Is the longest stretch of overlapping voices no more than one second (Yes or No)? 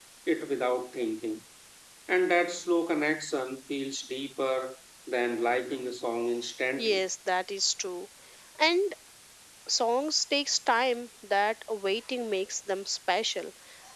Yes